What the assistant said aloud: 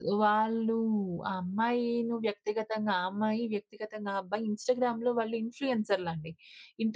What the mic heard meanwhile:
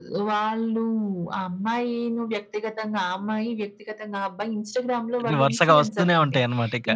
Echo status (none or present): present